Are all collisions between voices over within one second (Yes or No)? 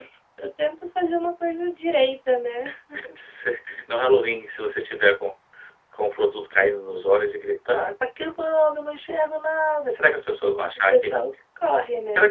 Yes